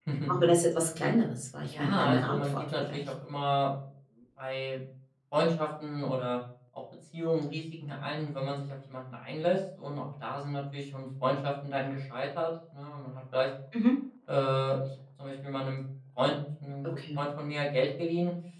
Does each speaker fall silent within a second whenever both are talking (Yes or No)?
No